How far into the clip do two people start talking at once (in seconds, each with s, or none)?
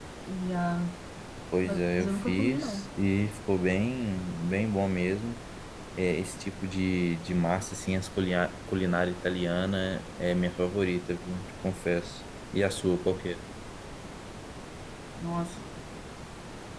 1.6 s